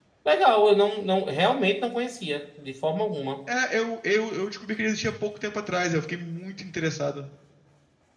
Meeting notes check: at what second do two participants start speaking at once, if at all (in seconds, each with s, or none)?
none